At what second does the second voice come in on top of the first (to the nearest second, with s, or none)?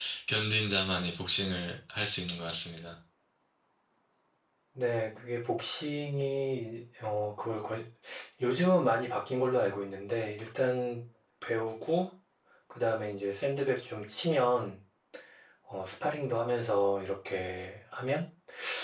none